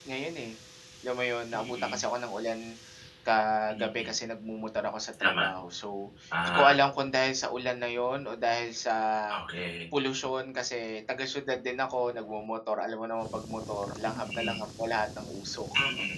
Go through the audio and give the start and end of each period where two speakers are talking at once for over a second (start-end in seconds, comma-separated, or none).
none